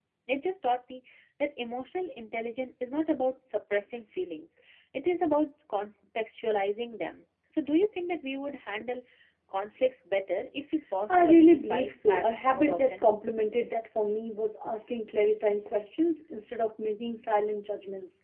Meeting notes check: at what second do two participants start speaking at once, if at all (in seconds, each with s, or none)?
11.1 s